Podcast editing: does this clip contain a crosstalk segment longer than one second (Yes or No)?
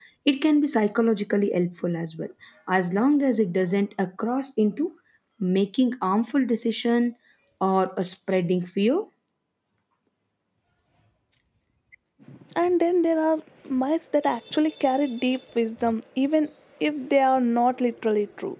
No